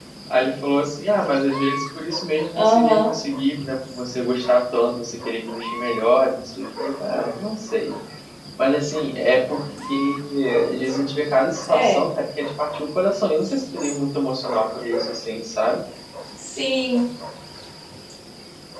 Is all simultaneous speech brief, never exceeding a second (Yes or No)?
Yes